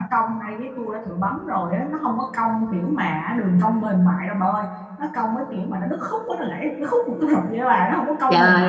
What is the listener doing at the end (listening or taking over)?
taking over